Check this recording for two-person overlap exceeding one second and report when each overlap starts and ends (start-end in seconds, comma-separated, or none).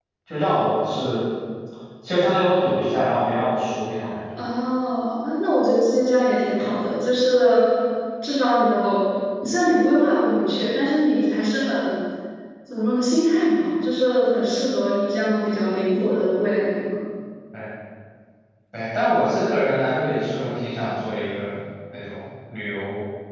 none